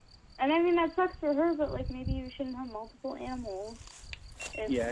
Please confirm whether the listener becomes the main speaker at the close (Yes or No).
Yes